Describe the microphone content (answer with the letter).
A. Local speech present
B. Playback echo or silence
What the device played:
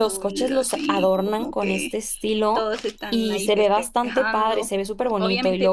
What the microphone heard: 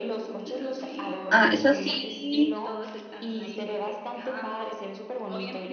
A